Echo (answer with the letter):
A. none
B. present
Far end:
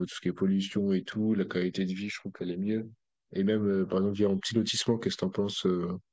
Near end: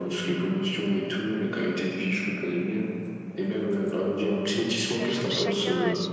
B